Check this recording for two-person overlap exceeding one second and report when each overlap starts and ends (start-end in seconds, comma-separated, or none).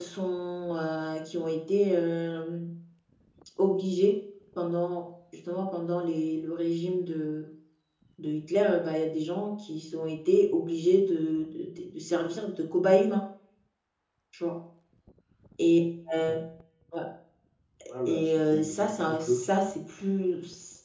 18.1-19.4